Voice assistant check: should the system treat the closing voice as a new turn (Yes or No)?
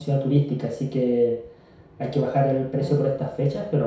No